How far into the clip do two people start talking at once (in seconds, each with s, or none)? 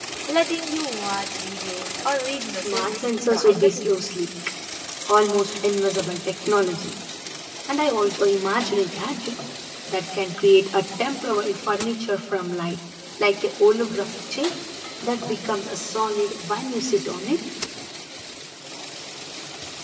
2.5 s